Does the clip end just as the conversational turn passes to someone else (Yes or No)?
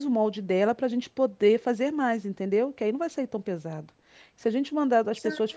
No